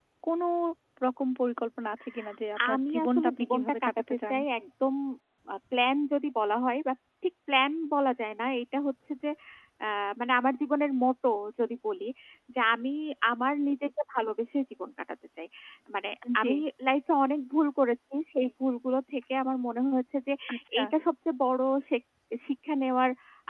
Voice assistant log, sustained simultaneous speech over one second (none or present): present